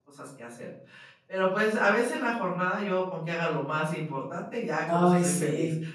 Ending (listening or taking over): taking over